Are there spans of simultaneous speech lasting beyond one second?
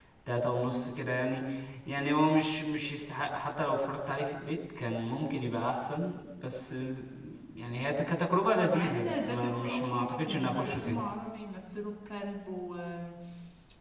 Yes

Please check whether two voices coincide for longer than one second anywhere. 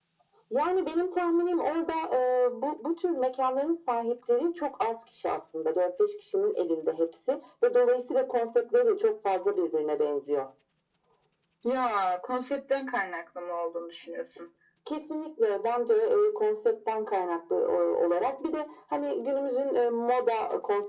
No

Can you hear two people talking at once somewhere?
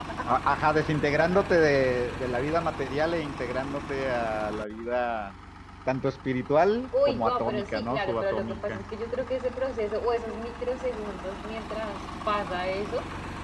Yes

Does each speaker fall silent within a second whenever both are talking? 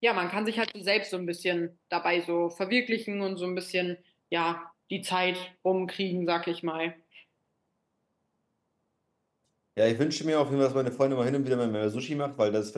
Yes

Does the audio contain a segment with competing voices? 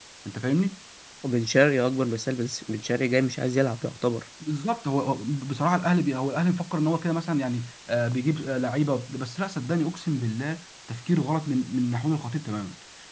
No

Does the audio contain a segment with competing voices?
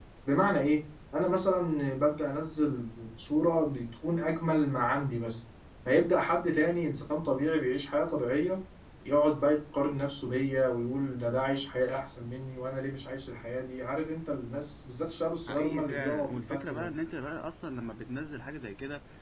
Yes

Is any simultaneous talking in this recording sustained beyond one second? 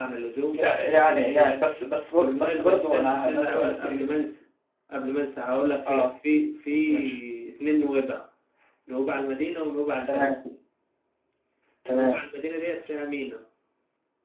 Yes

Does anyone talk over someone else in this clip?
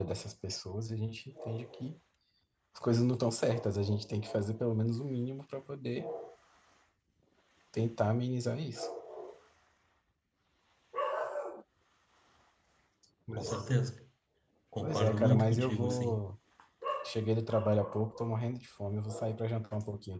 Yes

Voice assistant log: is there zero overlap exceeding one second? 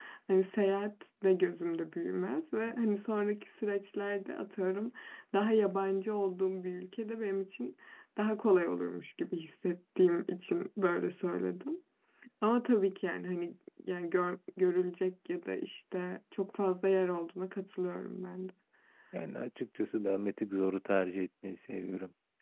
Yes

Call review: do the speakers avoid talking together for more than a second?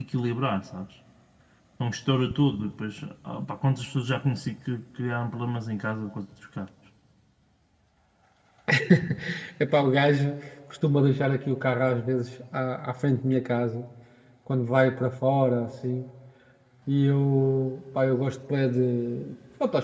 Yes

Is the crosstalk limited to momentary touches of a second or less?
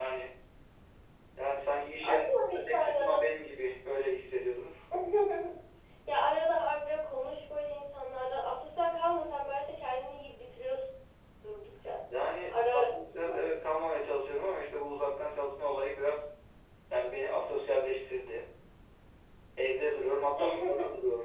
No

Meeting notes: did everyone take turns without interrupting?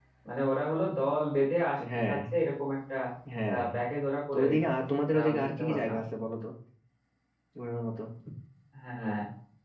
No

